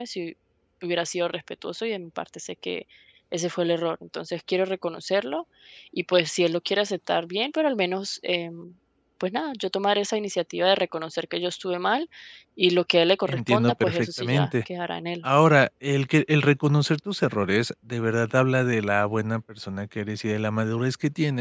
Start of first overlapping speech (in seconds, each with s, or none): 13.3 s